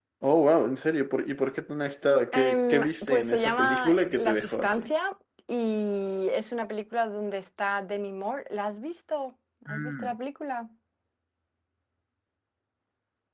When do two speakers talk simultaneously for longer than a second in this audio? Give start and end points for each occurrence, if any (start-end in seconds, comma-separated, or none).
2.3-4.9